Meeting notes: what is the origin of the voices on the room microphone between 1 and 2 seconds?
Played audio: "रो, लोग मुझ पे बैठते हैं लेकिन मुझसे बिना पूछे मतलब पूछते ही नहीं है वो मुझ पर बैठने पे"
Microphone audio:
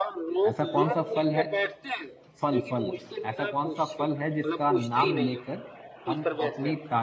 both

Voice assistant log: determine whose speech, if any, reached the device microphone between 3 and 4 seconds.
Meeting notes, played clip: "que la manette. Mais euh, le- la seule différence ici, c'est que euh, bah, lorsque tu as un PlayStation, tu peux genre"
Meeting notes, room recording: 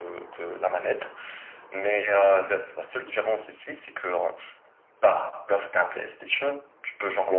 echo only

